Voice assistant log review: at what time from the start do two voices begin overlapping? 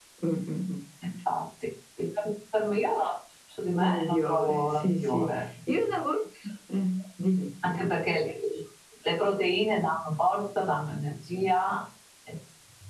3.8 s

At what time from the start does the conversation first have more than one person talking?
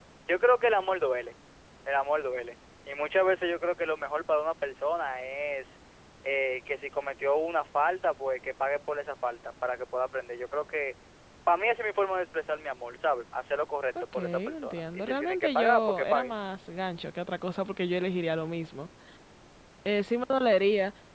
14.0 s

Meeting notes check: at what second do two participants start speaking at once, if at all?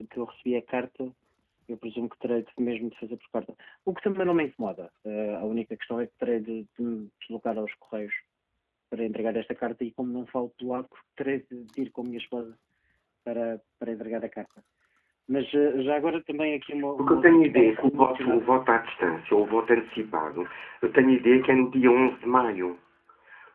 17.0 s

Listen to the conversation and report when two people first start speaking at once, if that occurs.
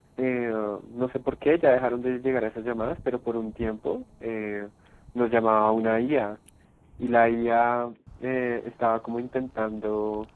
none

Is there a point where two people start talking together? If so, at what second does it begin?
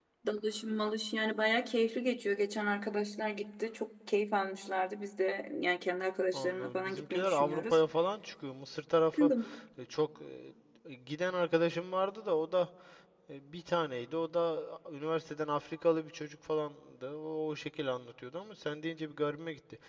6.3 s

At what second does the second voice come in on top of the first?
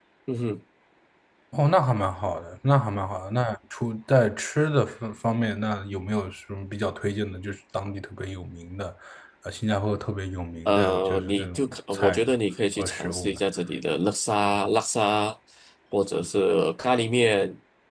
10.7 s

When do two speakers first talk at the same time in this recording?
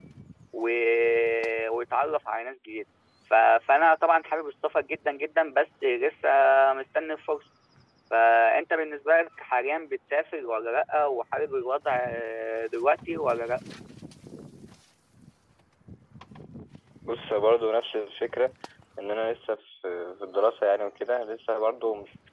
none

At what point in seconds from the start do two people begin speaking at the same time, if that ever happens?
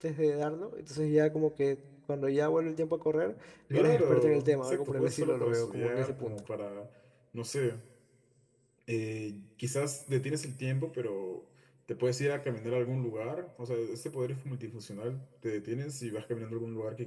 3.7 s

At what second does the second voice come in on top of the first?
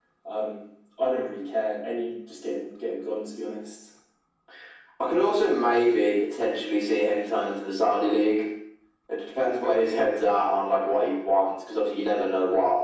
none

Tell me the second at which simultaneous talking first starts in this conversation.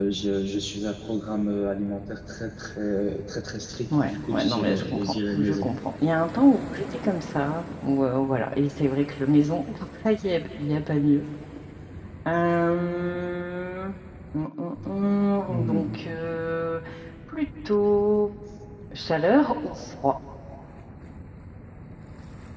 4.0 s

